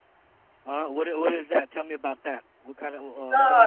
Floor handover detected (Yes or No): Yes